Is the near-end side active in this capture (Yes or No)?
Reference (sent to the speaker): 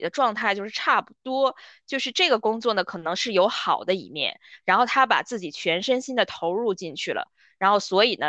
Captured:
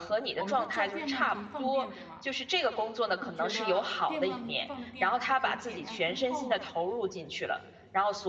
Yes